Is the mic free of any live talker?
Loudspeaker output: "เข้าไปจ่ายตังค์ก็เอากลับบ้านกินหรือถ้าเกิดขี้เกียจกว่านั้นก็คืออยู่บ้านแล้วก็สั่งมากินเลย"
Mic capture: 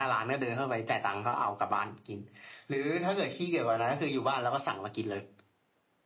Yes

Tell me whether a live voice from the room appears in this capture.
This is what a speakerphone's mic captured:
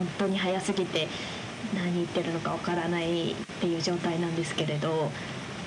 No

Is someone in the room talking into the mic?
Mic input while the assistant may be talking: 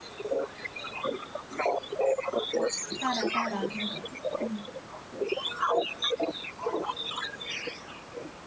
Yes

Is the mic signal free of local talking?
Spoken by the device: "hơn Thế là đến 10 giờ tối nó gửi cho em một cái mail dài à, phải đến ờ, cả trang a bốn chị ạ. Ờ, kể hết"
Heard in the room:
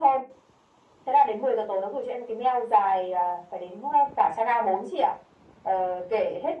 Yes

